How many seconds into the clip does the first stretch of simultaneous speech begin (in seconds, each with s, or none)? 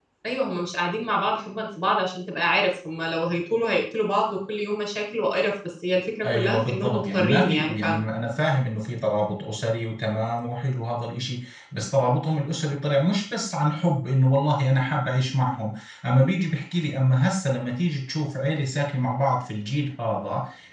6.2 s